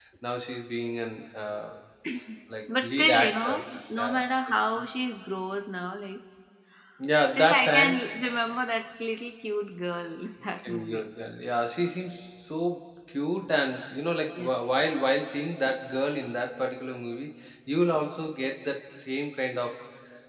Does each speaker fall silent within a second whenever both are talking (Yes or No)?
No